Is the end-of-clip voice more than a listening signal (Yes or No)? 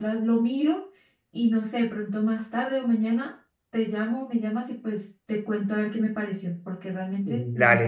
Yes